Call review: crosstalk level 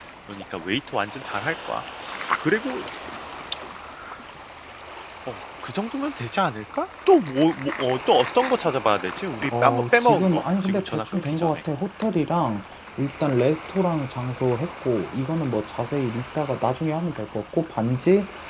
present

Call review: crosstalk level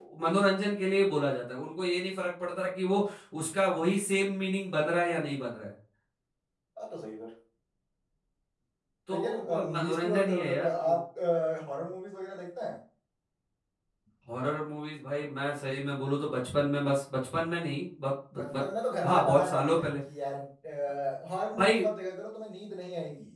present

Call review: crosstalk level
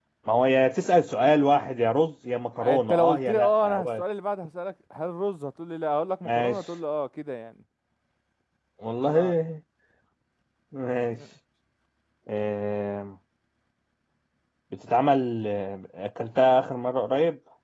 present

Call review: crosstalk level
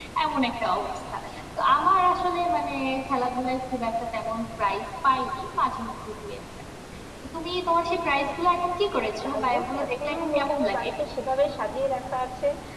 present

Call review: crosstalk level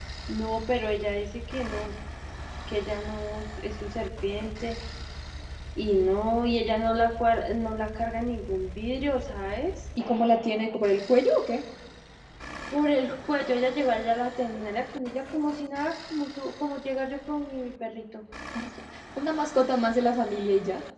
none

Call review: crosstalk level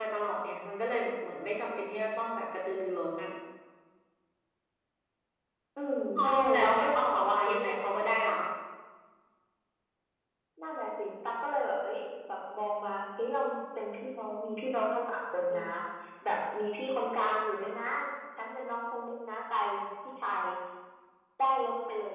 present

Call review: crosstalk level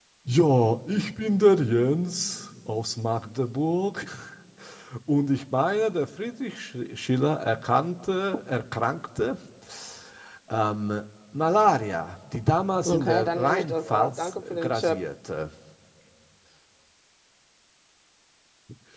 present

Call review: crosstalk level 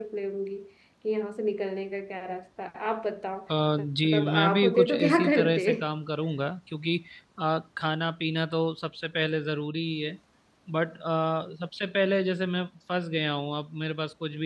present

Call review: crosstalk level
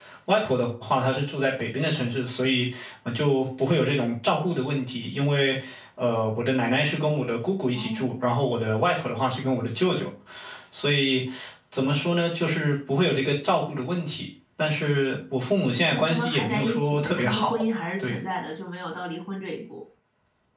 present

